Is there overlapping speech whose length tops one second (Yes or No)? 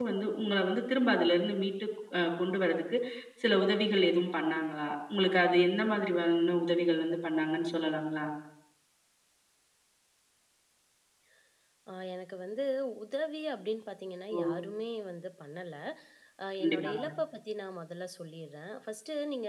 No